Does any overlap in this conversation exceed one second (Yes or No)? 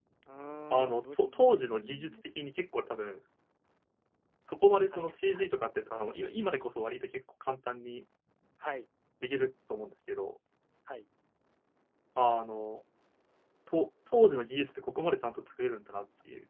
Yes